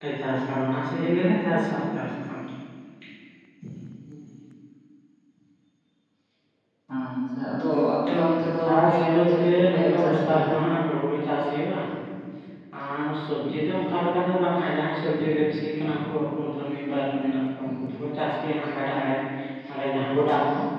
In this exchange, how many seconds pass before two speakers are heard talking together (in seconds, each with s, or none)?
8.3 s